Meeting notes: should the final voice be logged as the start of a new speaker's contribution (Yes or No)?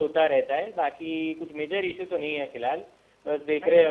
No